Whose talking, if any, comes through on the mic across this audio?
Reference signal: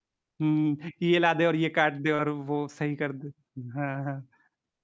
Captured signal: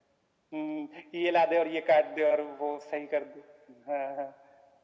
echo only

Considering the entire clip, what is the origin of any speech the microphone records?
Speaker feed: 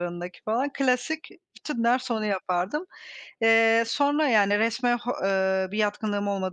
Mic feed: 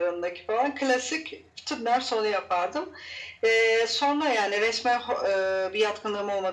echo only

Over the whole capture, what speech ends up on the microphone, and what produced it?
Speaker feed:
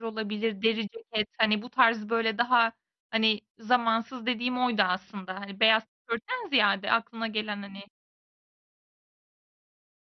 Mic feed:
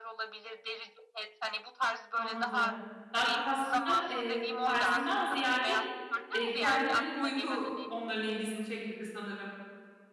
both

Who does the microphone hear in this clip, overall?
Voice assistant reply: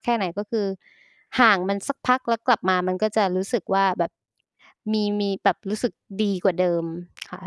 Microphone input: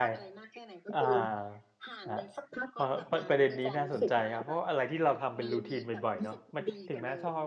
both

